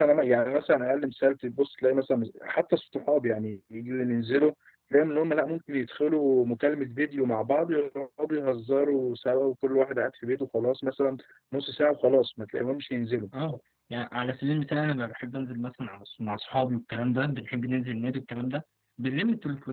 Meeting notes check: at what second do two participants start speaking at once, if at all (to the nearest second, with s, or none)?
none